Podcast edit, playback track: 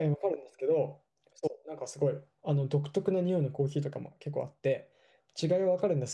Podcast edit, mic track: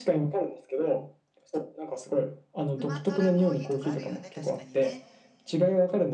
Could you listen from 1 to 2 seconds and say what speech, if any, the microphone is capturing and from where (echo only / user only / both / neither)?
echo only